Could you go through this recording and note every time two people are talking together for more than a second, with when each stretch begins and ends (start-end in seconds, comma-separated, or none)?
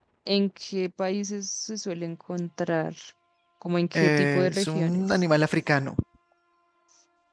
3.9-5.2